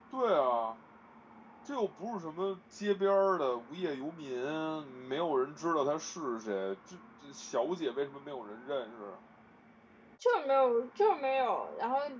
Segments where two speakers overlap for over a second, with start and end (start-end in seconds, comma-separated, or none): none